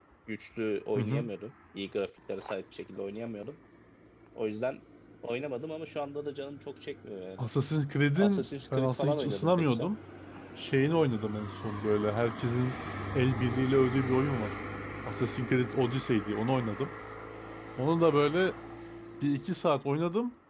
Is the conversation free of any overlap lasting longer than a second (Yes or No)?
No